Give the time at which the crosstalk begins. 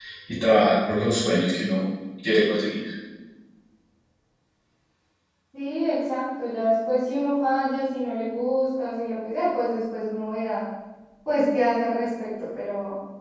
none

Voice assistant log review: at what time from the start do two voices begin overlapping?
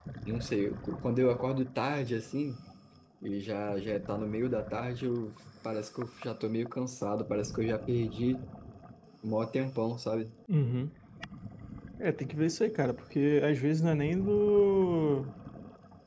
none

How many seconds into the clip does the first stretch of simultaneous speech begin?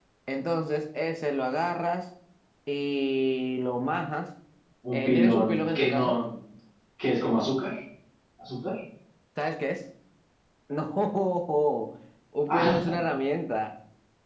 4.9 s

